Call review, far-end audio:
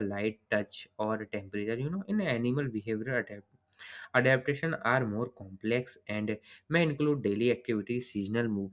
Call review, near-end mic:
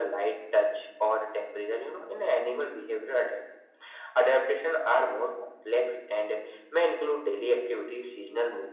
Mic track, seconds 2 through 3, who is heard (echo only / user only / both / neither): echo only